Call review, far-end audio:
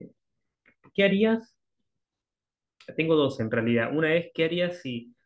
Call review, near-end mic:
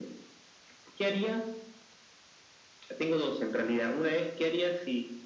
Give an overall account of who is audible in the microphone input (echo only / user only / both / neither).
echo only